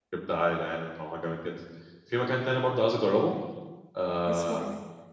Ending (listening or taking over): listening